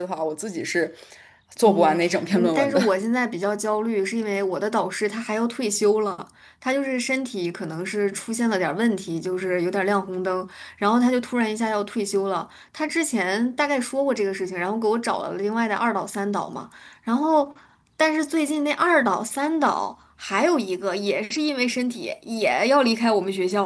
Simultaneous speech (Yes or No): Yes